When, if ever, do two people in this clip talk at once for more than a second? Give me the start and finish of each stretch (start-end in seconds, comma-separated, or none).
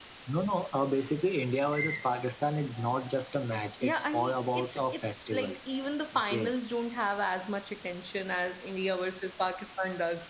3.8-5.6